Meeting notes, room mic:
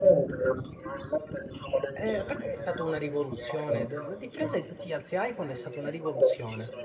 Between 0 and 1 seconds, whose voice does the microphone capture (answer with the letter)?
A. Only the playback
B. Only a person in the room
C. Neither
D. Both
A